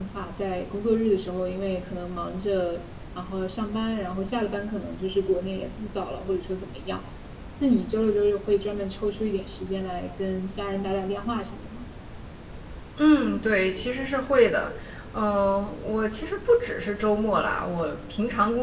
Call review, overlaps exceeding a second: none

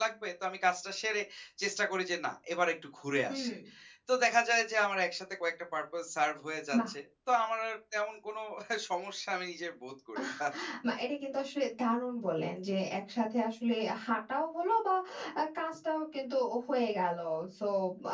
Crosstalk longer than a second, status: none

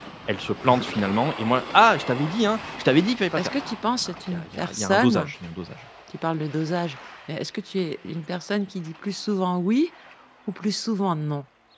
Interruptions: present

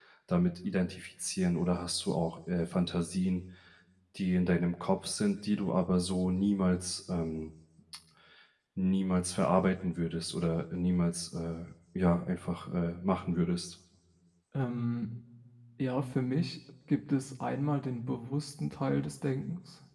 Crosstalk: none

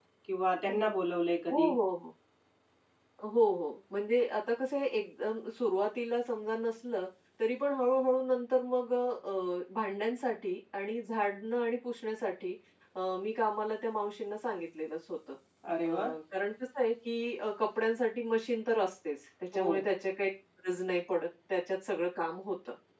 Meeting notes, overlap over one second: none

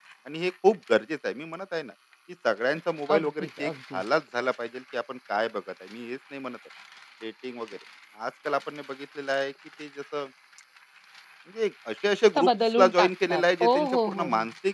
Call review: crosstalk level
present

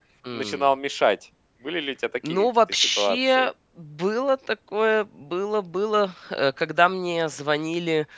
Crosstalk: present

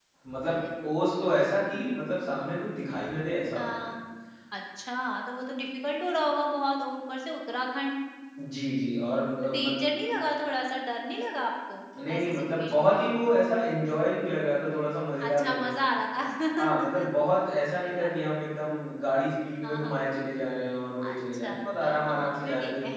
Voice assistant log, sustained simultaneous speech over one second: present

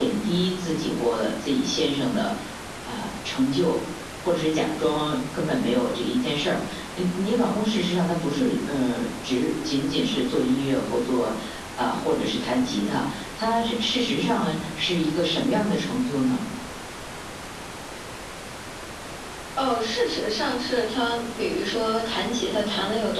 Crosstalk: none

